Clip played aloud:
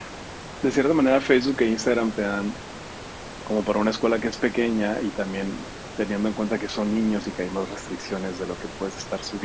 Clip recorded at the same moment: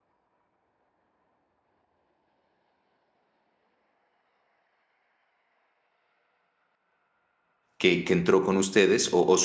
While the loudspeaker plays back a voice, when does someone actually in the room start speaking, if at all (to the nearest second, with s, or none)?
8 s